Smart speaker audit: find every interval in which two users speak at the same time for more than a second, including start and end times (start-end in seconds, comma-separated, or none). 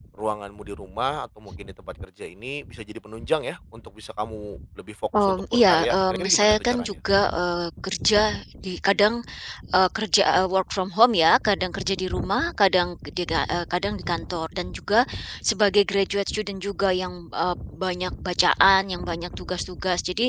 5.2-7.0